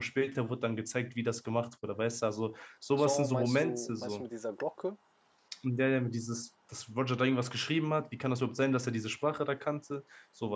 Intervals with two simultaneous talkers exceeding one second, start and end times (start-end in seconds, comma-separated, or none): 2.9-4.2